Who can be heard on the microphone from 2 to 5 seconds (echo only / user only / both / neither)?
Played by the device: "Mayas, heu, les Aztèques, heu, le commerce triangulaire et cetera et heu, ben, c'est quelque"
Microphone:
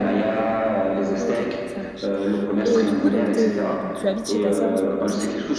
both